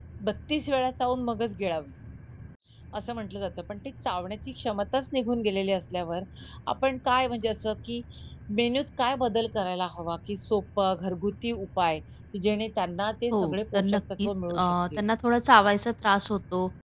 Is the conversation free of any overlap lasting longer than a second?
No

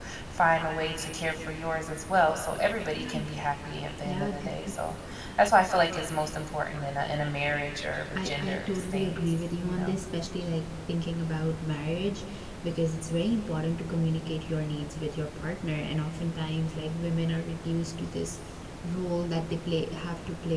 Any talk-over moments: Yes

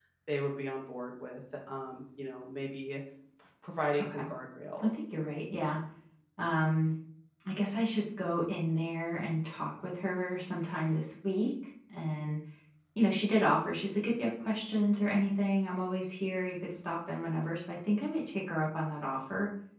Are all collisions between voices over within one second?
Yes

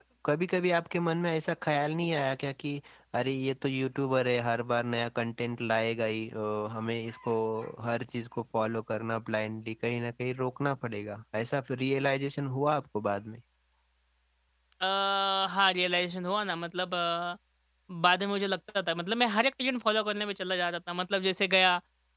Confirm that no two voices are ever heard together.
Yes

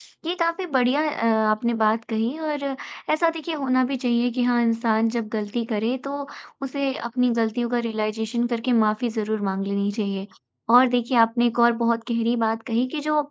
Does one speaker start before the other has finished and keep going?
No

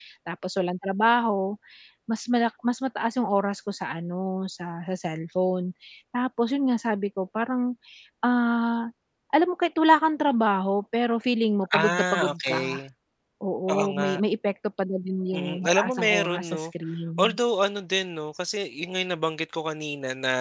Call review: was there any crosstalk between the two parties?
Yes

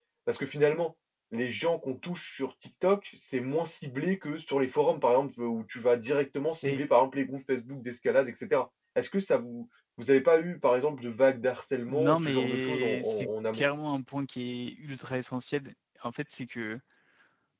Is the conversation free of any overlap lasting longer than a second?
No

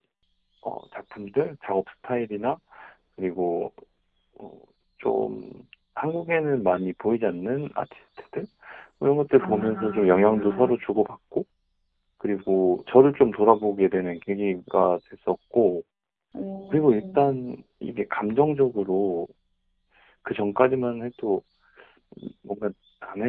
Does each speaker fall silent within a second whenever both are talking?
No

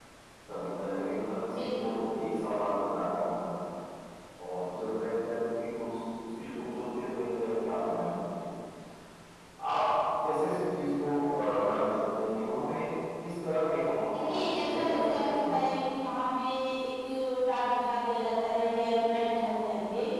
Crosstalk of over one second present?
Yes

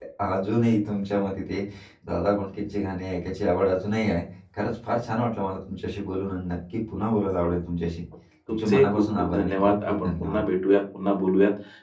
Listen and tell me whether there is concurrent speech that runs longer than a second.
Yes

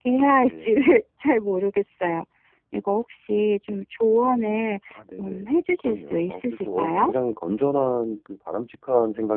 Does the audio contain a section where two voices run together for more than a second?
Yes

